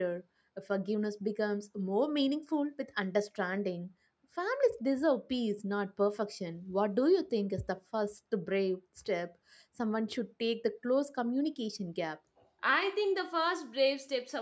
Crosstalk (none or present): none